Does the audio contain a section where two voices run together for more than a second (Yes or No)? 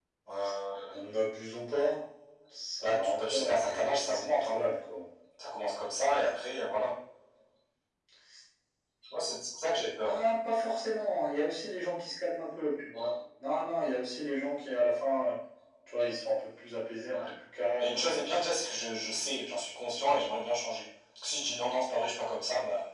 Yes